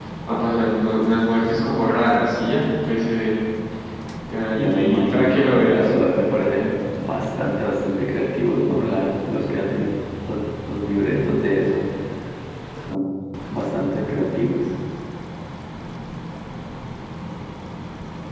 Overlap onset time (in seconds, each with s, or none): 4.6 s